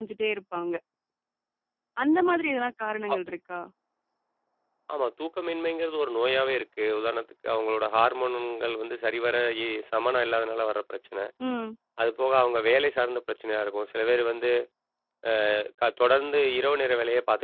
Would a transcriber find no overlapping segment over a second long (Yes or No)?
Yes